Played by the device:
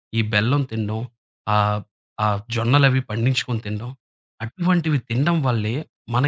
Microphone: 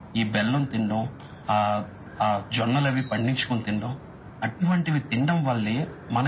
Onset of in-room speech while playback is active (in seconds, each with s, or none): none